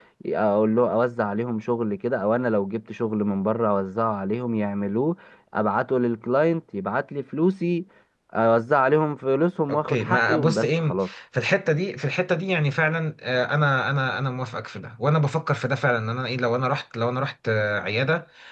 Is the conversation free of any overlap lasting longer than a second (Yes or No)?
No